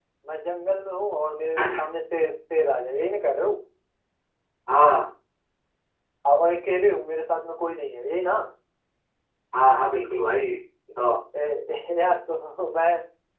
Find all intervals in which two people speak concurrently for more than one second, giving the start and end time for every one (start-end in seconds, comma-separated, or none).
none